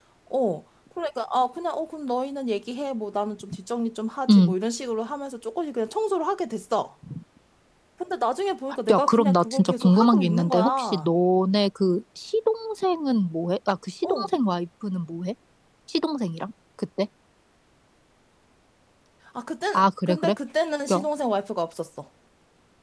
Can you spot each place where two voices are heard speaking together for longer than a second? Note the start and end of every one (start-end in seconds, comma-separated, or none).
8.9-11.1